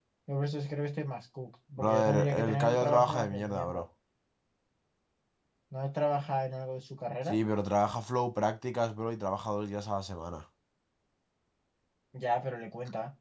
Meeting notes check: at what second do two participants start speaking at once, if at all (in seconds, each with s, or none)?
1.8 s